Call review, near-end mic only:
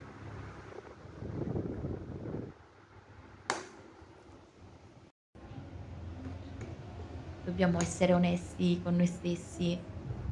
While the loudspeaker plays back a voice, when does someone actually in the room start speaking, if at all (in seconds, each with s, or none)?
7.4 s